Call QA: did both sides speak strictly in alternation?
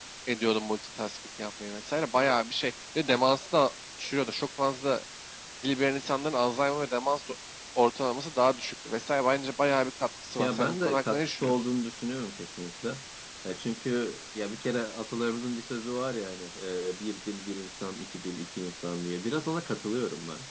No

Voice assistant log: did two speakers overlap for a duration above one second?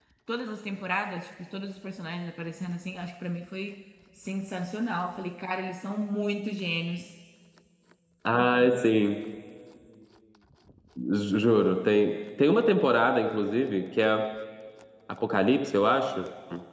No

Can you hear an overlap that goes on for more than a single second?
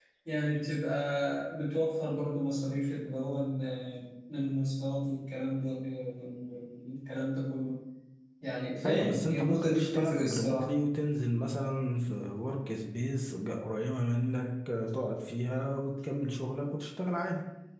Yes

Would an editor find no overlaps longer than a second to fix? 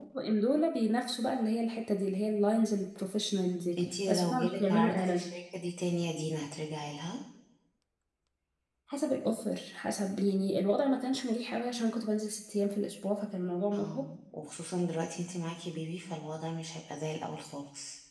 No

